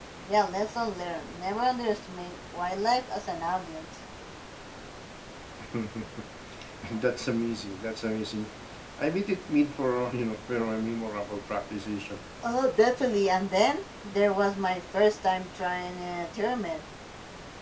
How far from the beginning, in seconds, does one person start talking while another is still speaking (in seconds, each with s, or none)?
none